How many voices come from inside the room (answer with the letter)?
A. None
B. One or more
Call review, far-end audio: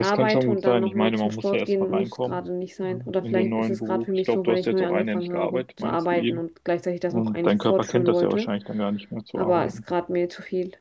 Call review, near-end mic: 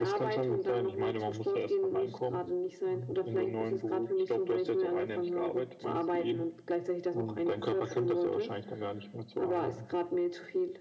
A